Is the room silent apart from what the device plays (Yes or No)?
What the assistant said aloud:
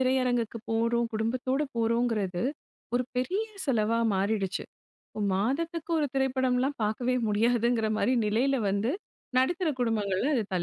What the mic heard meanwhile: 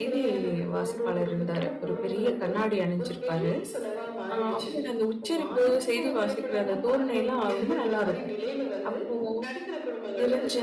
No